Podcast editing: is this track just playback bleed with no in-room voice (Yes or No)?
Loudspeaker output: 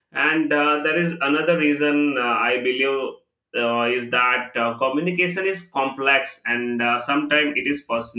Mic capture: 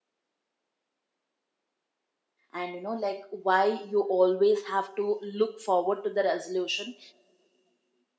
No